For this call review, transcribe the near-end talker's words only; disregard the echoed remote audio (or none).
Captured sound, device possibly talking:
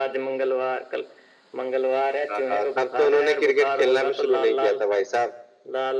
none